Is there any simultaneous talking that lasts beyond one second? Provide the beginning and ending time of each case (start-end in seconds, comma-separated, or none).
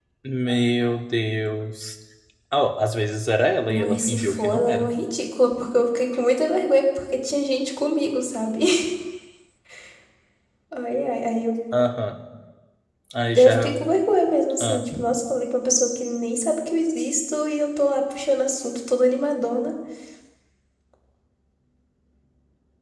3.7-4.9